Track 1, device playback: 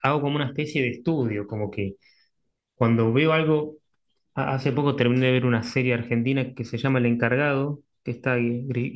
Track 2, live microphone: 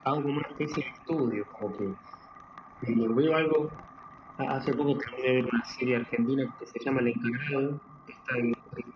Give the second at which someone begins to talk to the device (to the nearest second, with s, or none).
none